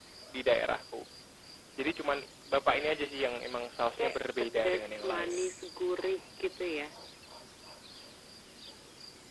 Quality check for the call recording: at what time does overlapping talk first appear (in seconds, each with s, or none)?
4.0 s